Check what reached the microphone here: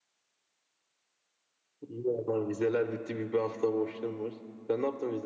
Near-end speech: none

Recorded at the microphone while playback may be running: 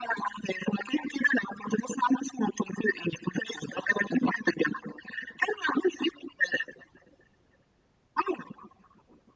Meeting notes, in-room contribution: none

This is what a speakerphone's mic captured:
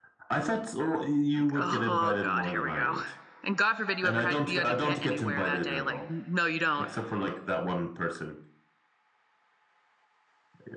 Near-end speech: present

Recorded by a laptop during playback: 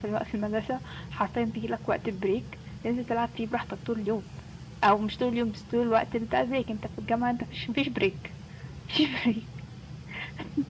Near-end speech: none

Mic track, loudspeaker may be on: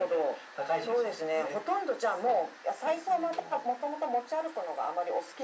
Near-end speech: none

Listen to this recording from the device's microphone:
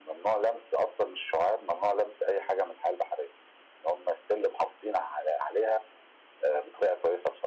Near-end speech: none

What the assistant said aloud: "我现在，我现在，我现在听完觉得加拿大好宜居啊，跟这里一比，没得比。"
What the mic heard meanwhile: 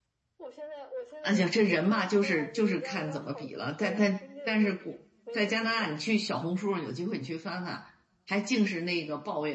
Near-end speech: present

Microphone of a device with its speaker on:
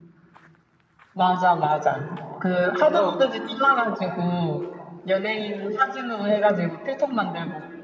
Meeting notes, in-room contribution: present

